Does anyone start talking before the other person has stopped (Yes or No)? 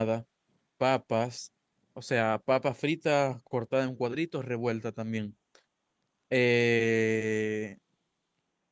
No